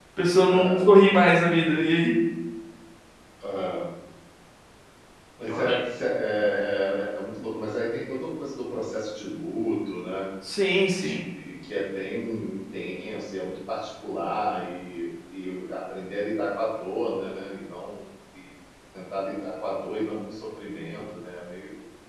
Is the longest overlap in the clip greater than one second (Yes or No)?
No